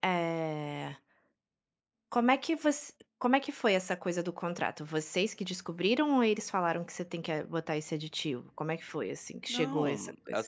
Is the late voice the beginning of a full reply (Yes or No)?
Yes